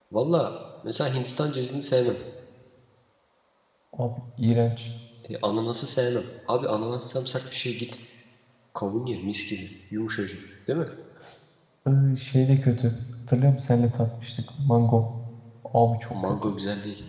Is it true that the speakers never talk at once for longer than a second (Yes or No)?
Yes